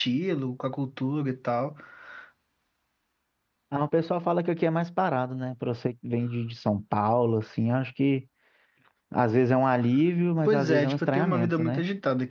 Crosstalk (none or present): present